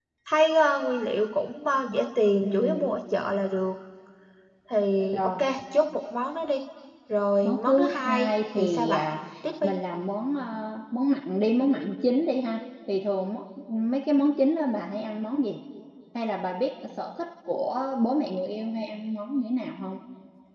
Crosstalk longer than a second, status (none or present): present